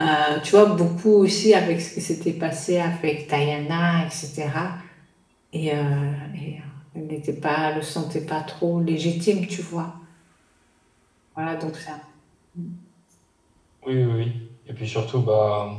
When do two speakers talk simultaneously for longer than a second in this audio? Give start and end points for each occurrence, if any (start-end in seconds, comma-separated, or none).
none